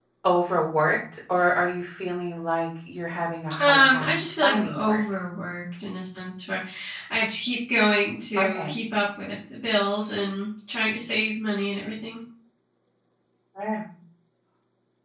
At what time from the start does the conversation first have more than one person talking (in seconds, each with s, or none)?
3.6 s